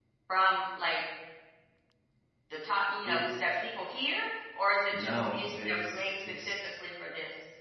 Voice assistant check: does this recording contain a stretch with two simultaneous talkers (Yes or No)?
Yes